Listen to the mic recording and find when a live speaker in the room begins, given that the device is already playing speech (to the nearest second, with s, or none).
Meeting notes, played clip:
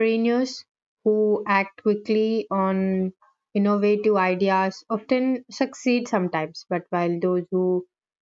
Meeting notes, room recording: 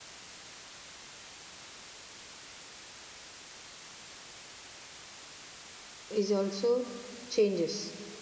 6 s